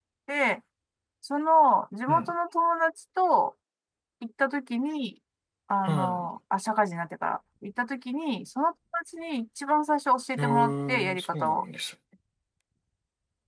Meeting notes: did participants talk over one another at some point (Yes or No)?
Yes